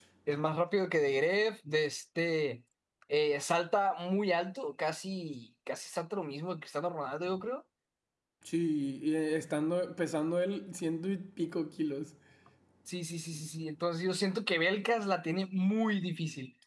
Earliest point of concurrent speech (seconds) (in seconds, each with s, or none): none